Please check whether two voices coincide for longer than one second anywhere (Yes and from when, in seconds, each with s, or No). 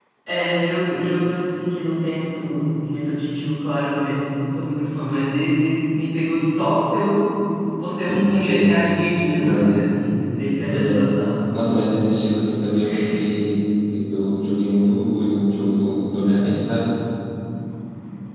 No